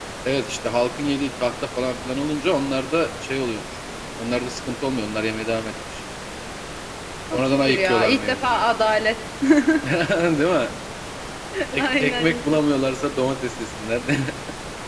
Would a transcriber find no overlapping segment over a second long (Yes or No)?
No